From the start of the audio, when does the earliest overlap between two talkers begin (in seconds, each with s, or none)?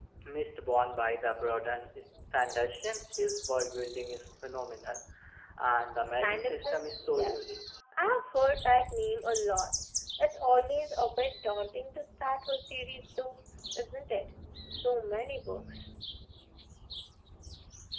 6.1 s